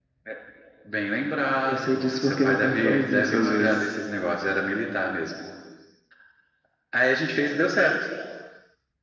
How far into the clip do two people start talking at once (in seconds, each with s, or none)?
1.6 s